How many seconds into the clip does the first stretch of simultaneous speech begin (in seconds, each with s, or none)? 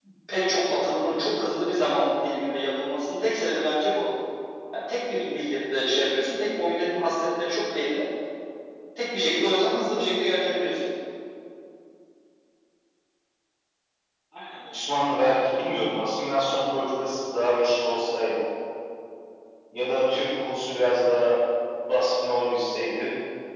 none